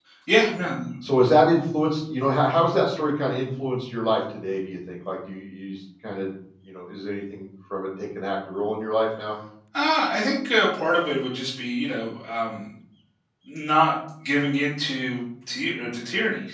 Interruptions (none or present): none